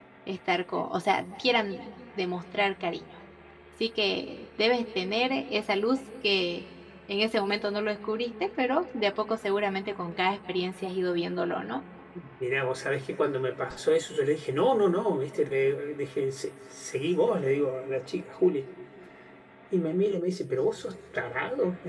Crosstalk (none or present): none